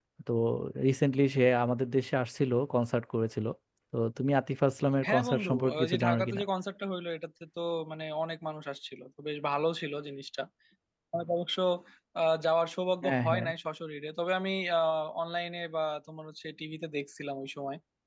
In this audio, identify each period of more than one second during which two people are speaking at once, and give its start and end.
5.1-6.4

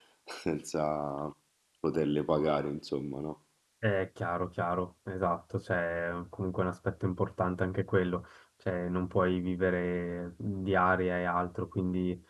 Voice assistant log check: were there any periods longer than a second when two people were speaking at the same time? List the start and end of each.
none

